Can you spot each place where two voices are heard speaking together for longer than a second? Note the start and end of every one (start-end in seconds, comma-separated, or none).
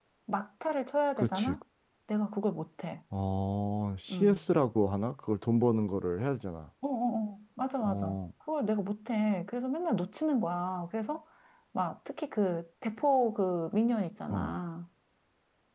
none